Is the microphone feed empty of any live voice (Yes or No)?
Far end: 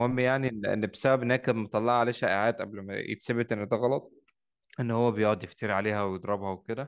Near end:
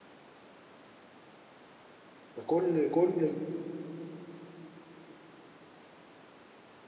No